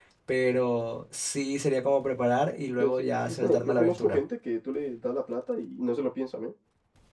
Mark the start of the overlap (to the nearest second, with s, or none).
3 s